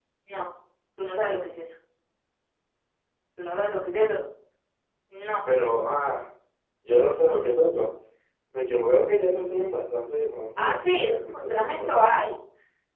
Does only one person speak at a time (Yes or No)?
No